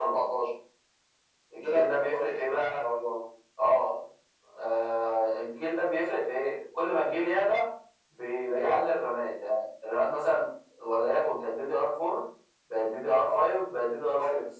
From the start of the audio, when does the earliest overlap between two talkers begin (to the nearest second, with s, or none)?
2 s